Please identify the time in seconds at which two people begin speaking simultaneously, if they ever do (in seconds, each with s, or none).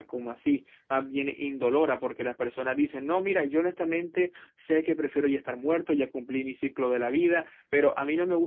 none